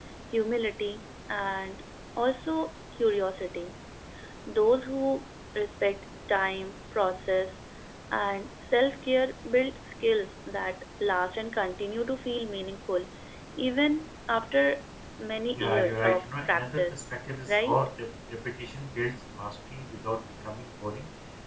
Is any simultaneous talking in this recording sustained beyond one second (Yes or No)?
Yes